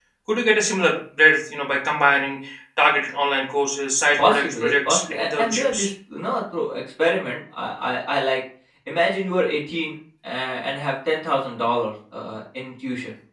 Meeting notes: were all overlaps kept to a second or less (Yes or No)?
No